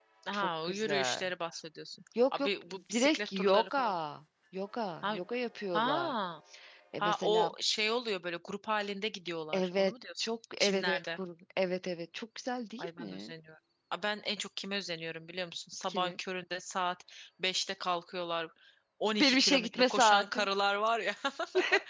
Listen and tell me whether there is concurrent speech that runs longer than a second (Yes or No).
Yes